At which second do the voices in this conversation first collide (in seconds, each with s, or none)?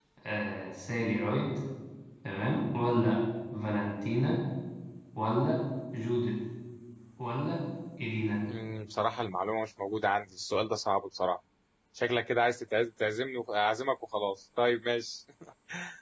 none